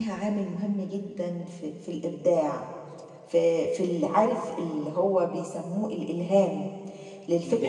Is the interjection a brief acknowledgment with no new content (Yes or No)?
Yes